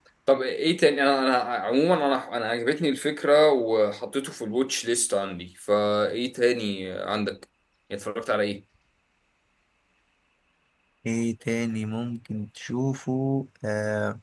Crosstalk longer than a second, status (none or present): none